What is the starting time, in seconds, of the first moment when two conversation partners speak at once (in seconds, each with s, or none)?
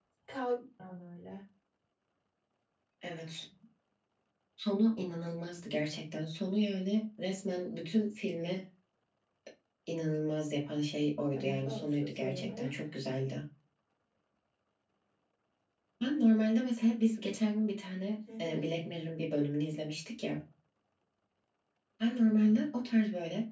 11.3 s